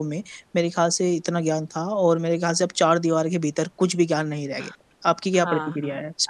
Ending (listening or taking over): taking over